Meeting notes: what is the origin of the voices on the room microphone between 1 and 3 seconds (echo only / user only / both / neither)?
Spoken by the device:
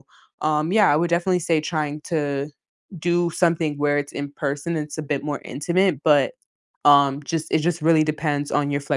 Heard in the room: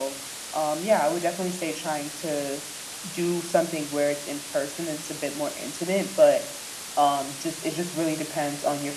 echo only